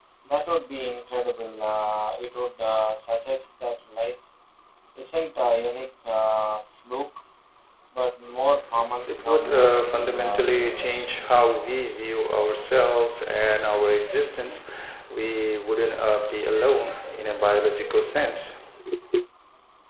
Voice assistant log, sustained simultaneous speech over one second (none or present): present